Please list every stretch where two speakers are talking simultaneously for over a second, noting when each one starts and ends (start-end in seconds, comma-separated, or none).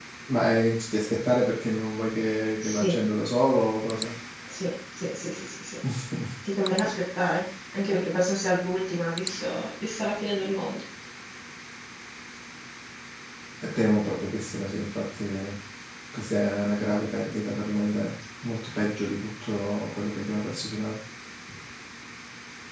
none